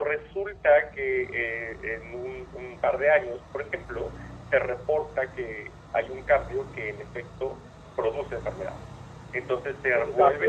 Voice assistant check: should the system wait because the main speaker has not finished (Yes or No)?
No